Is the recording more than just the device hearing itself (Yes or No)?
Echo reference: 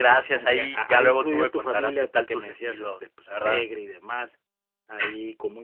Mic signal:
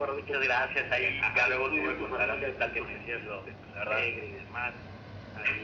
No